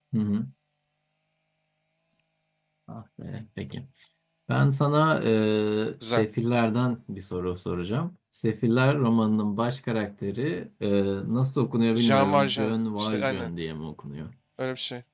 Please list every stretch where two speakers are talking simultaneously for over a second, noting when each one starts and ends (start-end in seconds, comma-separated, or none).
11.9-13.5